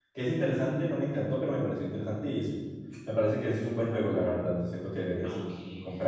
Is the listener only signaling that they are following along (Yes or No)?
No